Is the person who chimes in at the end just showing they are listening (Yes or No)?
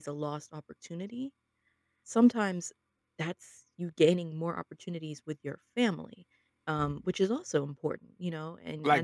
No